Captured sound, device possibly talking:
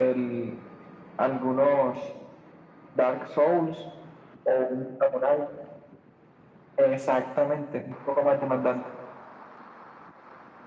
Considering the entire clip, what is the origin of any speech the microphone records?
echo only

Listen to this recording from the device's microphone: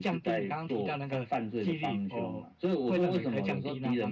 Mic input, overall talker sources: echo only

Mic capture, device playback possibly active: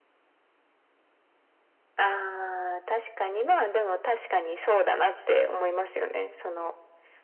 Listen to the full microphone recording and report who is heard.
echo only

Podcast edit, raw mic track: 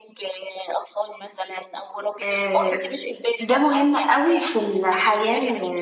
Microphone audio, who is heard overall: both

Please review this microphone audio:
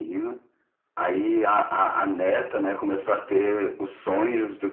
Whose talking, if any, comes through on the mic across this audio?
echo only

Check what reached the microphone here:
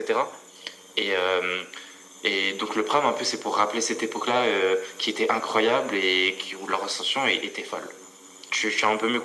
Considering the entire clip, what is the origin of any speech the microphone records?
echo only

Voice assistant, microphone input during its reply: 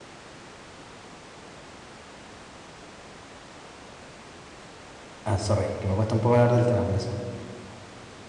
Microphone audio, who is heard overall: user only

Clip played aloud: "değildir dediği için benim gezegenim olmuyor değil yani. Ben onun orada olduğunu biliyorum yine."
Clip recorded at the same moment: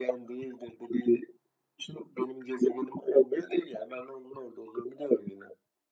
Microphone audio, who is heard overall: echo only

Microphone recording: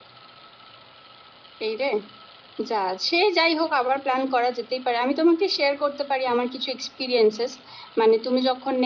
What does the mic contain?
echo only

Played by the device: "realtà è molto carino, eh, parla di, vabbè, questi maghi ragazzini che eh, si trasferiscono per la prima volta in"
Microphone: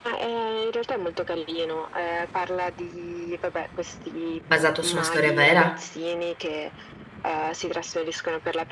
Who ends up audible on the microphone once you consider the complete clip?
both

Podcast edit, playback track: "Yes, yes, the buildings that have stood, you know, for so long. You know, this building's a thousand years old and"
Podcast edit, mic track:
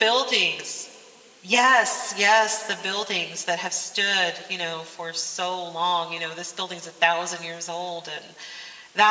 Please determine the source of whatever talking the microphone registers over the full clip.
echo only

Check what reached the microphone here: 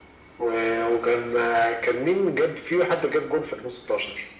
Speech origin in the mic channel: echo only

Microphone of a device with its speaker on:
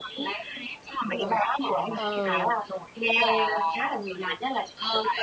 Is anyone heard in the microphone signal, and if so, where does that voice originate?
both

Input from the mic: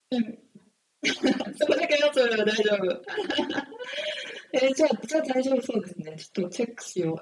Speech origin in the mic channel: echo only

